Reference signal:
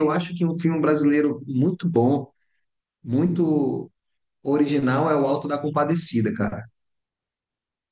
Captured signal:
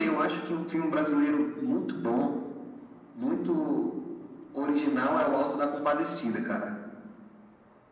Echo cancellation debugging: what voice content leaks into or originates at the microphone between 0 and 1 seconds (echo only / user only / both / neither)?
echo only